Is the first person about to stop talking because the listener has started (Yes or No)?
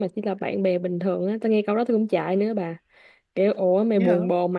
No